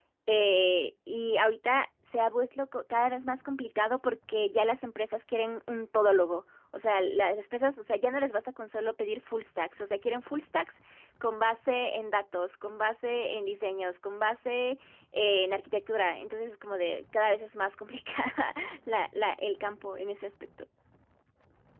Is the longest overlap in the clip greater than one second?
No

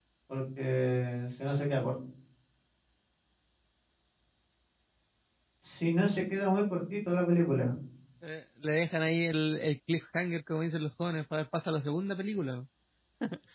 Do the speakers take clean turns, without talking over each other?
Yes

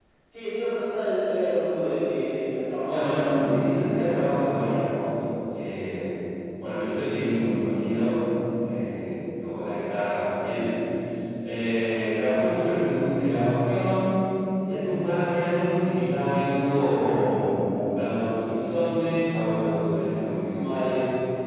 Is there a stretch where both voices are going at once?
Yes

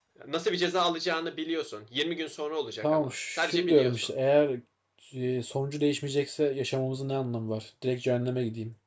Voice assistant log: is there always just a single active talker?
No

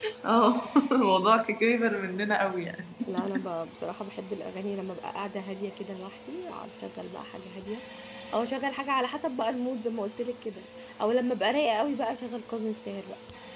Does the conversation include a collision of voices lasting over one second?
No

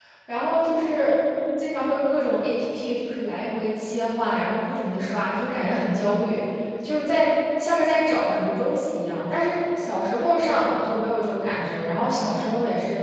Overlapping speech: No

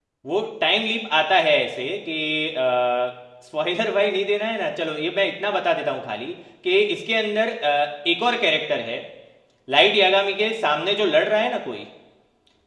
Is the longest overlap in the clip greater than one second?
No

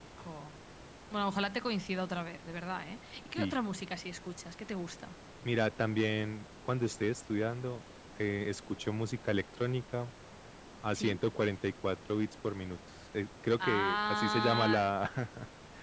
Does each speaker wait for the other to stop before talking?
No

